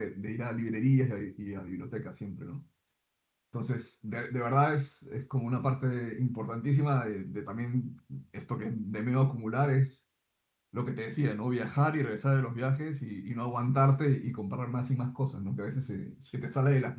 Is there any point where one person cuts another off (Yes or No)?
No